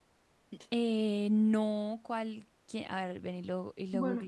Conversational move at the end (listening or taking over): taking over